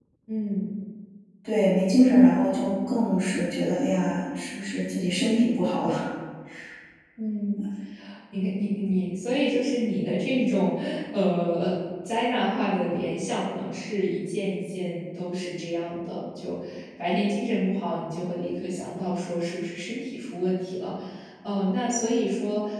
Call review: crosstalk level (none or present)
none